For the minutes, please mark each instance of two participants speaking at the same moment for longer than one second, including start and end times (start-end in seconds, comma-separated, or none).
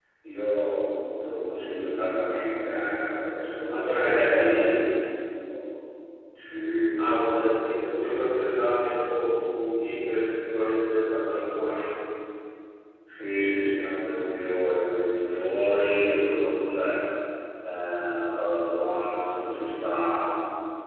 3.7-4.9